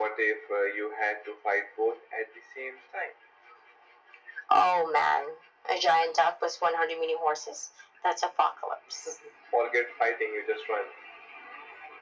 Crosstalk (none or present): none